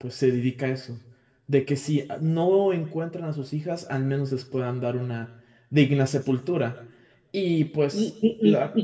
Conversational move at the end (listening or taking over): taking over